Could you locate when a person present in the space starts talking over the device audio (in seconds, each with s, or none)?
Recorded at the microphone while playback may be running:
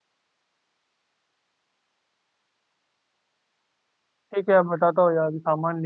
4.3 s